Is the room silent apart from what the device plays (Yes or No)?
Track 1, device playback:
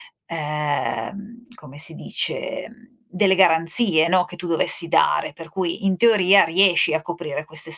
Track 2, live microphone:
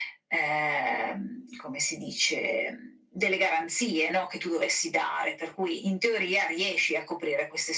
Yes